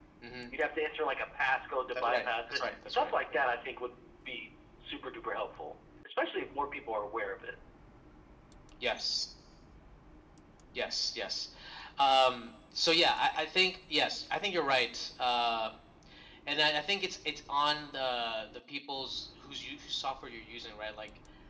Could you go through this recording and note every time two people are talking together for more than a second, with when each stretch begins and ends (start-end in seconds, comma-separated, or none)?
1.9-3.4